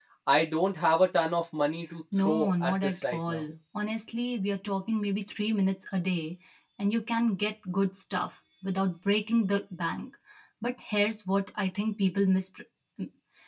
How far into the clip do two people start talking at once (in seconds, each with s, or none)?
2.1 s